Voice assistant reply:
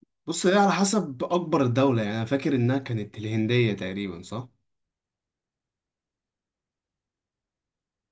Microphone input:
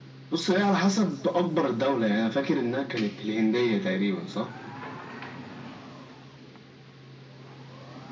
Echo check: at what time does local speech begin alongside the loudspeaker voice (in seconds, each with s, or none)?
none